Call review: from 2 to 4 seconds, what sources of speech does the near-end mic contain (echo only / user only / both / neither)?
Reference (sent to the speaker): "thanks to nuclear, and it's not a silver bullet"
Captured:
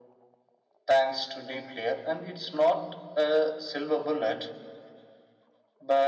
echo only